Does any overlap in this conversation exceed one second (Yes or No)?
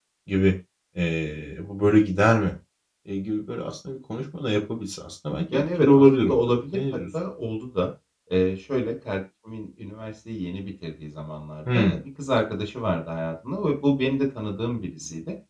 Yes